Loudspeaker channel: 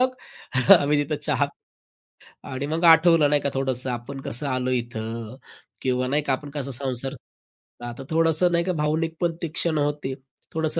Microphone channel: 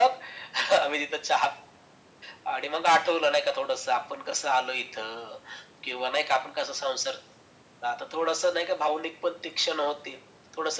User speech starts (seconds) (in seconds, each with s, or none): none